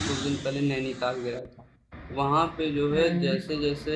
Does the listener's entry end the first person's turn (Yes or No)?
No